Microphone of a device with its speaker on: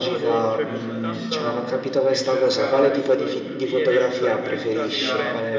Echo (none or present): present